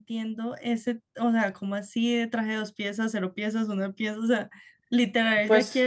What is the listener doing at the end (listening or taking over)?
listening